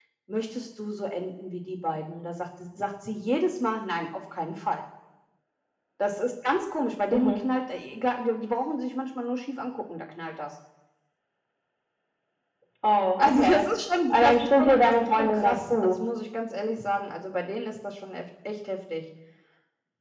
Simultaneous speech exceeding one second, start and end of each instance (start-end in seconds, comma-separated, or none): 14.1-16.0